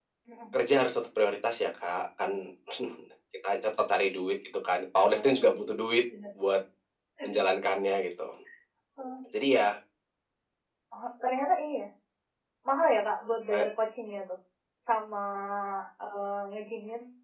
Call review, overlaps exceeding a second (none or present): none